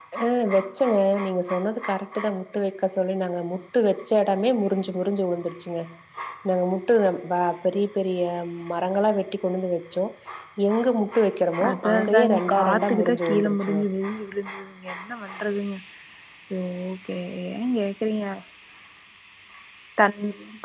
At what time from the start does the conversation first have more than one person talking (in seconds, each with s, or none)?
11.6 s